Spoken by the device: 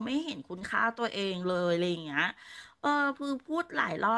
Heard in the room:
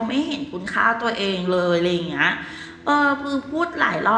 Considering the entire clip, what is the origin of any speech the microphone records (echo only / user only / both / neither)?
echo only